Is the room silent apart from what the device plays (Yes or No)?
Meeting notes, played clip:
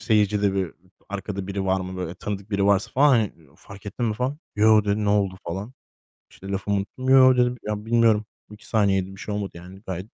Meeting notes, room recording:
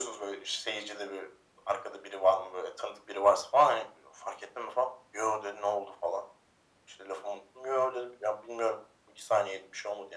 Yes